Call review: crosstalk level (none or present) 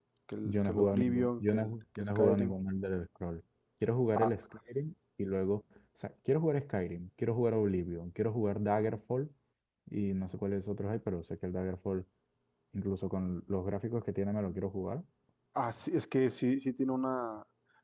present